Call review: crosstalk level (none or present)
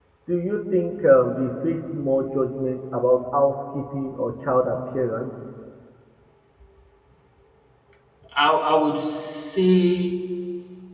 none